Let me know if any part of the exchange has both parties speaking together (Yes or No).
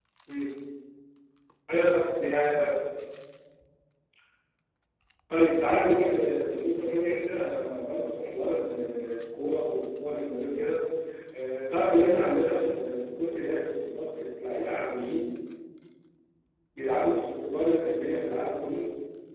No